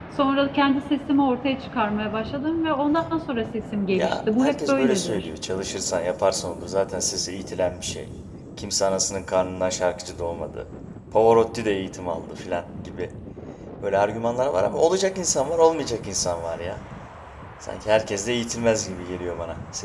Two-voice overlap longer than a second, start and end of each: 3.9-5.3

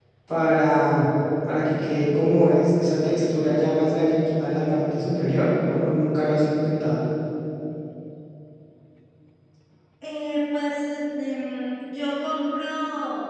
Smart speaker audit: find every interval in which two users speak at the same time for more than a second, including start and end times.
none

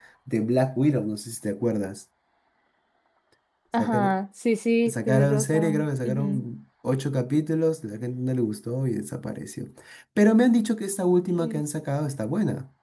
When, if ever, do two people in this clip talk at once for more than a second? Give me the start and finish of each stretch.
4.9-6.5

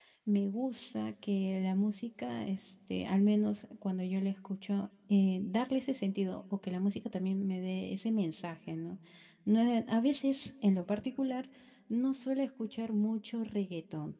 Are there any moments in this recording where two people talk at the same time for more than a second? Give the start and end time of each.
none

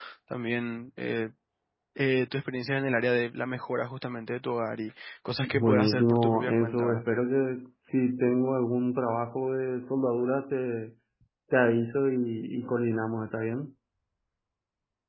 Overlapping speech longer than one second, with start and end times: 5.4-7.0

